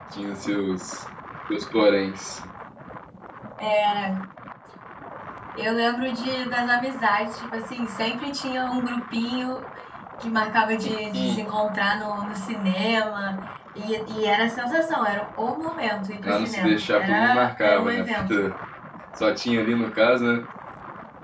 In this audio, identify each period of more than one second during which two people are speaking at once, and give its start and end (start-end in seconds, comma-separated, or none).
16.2-18.4